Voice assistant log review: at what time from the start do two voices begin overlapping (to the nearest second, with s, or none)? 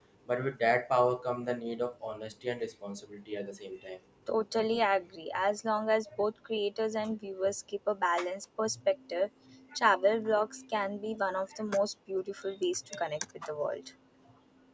none